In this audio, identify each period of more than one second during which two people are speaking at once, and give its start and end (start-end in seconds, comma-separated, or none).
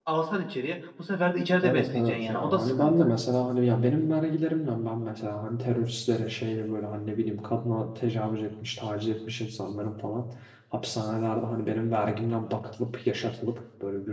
1.6-3.1